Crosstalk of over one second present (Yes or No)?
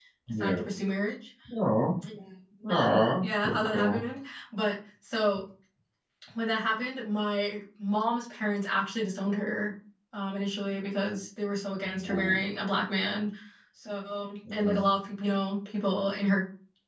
Yes